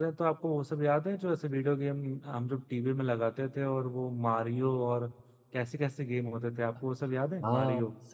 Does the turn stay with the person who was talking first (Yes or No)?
No